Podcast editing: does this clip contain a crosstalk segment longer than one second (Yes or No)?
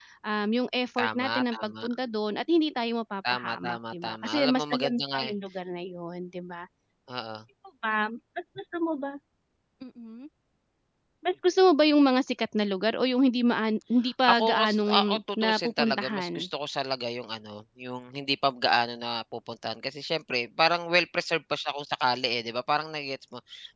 Yes